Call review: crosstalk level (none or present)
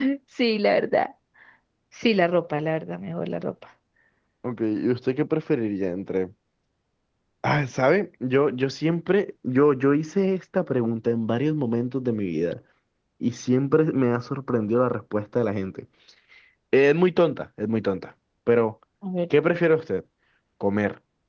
none